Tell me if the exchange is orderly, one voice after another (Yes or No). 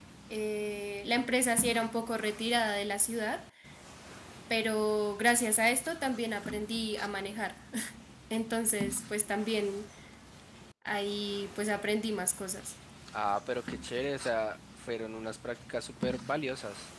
Yes